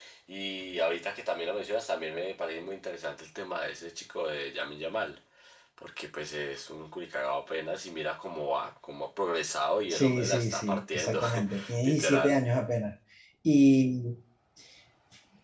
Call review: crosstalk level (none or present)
present